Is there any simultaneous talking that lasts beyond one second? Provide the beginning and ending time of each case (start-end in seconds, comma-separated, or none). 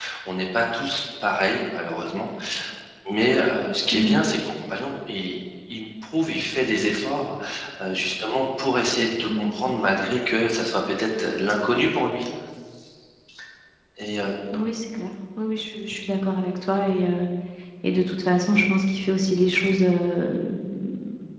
none